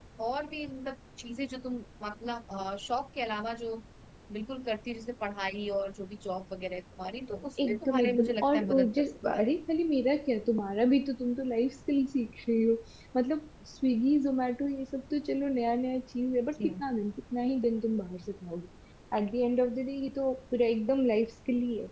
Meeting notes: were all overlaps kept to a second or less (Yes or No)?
No